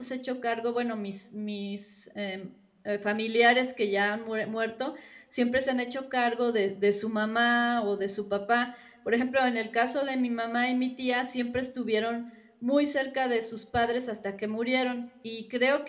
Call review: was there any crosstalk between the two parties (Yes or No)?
No